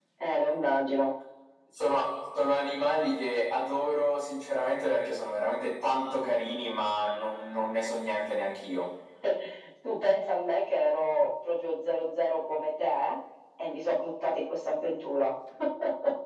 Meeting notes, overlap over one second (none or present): none